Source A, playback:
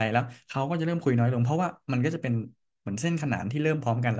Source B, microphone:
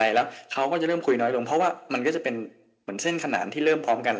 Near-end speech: none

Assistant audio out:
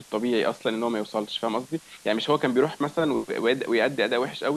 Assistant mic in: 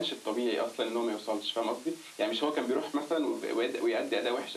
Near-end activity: none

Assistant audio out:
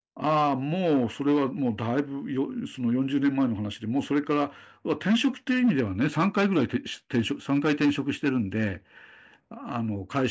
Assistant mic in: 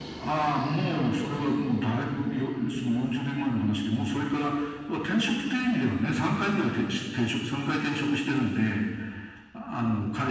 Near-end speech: none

